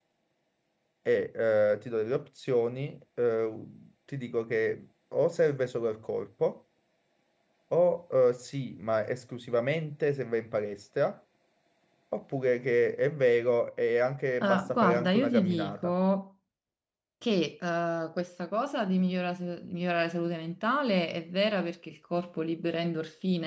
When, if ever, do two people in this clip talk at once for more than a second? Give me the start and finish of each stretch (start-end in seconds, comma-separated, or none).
14.4-15.9